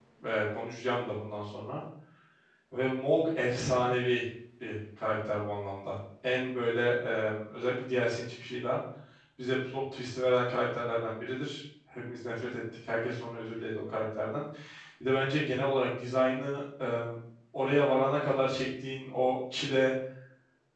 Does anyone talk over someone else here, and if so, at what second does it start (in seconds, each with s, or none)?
none